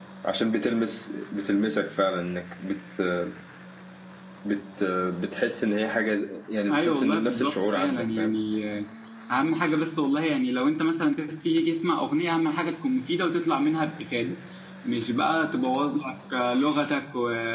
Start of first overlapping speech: 6.7 s

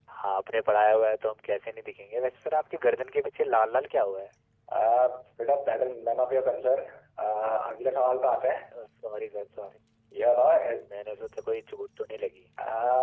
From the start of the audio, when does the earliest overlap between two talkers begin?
none

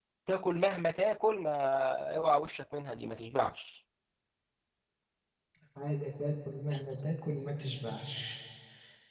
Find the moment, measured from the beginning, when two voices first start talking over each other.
none

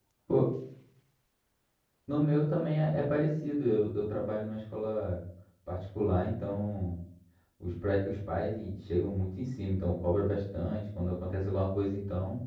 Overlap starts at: none

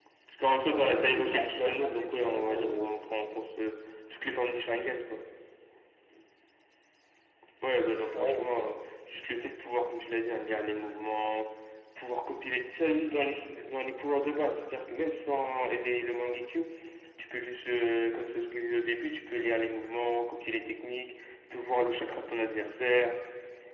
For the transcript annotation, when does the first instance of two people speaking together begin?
0.7 s

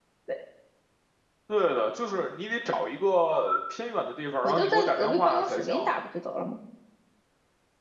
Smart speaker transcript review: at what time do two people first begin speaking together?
4.4 s

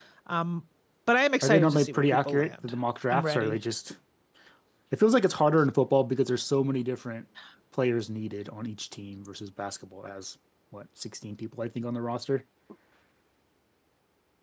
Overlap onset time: 1.4 s

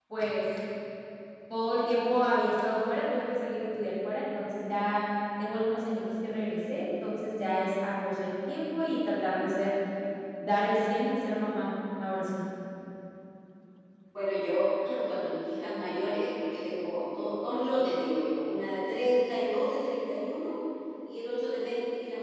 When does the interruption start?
none

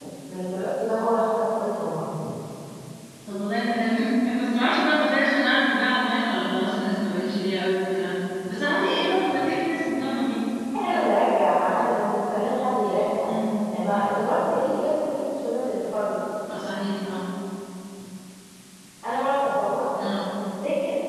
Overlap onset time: none

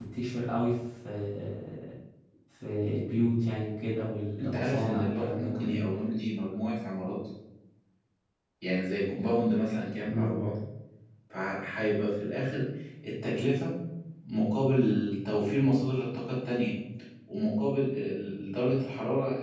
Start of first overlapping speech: 4.4 s

